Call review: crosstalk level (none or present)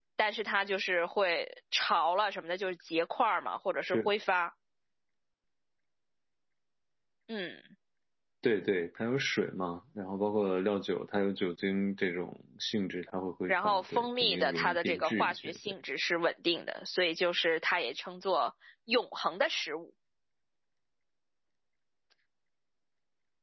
present